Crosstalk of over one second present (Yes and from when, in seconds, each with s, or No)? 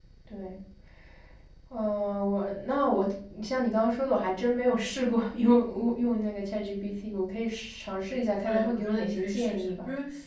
Yes, from 8.4 s